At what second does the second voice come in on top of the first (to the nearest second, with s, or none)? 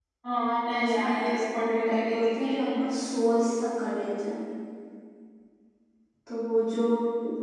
1 s